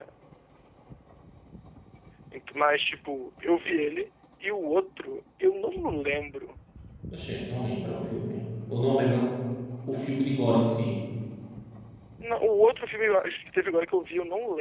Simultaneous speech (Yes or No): No